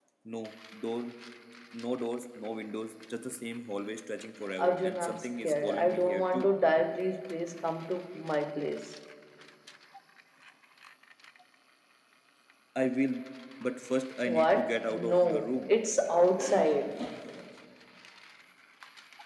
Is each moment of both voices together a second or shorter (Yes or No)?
No